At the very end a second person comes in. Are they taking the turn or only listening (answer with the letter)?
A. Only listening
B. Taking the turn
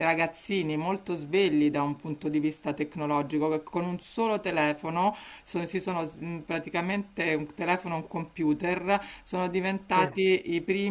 A